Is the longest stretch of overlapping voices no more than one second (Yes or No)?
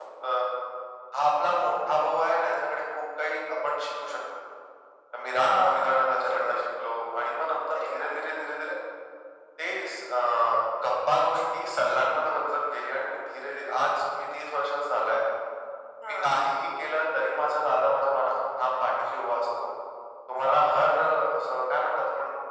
No